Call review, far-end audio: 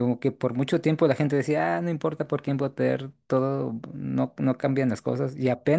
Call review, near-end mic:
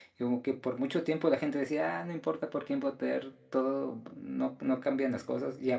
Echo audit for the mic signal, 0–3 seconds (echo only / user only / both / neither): echo only